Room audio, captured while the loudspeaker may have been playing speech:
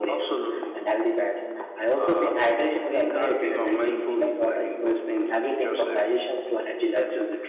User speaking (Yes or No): No